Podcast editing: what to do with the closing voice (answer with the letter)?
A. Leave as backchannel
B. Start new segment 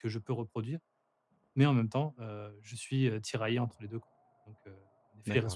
B